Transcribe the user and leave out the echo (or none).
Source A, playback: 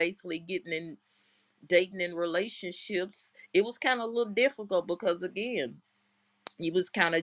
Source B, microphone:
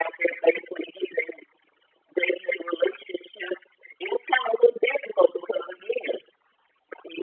none